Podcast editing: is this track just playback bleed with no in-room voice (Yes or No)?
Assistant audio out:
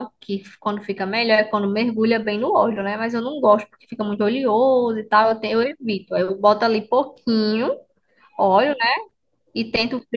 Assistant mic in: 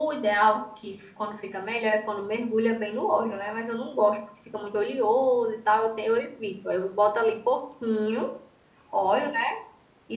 Yes